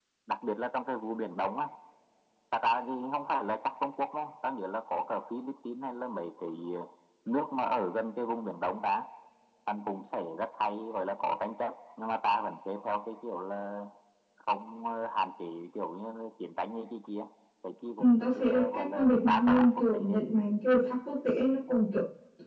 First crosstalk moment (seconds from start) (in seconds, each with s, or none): 18.0 s